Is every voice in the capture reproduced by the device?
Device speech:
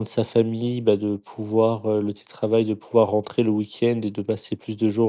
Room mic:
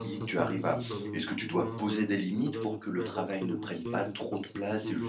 No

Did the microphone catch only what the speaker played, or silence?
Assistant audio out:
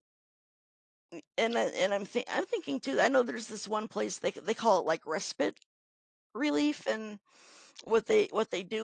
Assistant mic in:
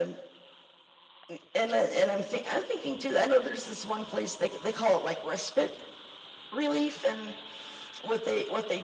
Yes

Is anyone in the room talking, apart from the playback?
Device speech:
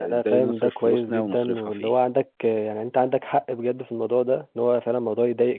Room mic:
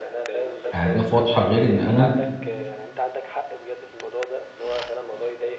Yes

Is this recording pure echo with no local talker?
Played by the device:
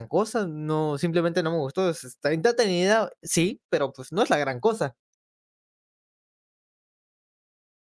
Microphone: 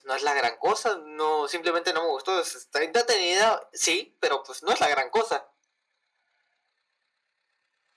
Yes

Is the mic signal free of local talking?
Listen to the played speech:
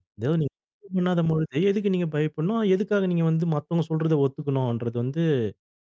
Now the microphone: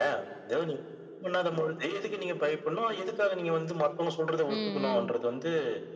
No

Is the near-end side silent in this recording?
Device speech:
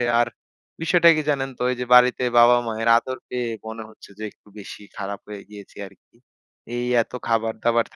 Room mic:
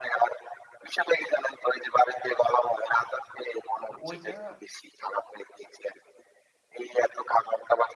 No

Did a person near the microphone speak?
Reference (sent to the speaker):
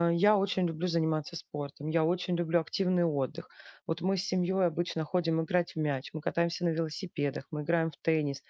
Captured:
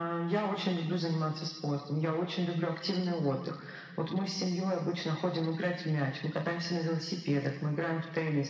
No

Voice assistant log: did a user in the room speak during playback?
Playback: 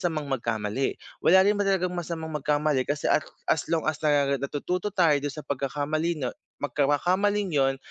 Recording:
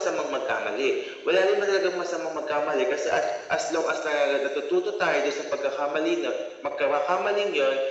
No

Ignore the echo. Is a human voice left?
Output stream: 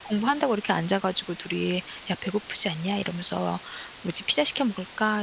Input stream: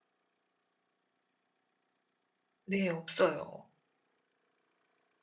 Yes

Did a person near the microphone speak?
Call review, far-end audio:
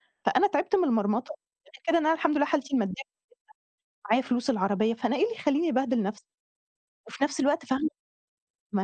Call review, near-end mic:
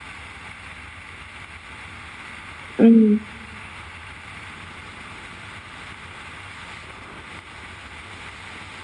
Yes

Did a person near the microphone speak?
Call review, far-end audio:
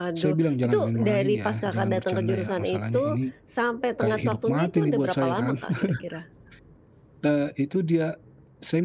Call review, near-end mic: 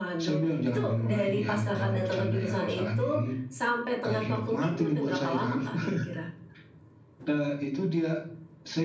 No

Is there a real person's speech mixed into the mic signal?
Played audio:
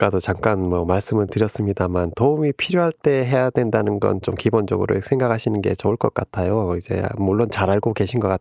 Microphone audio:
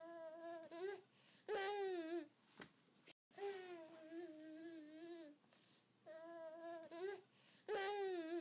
No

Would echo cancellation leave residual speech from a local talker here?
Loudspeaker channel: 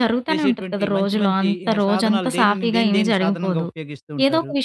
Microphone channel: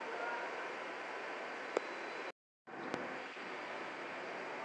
No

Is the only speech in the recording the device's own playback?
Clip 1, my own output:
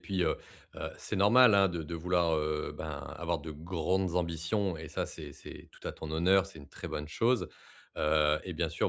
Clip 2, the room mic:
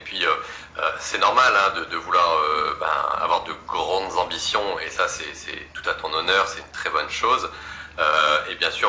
Yes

